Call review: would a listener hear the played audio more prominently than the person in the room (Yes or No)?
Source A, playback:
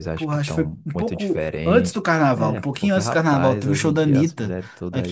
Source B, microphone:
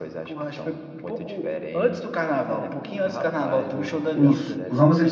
No